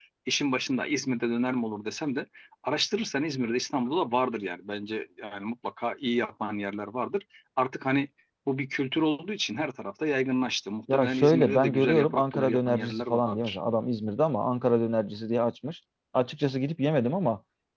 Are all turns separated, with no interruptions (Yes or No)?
No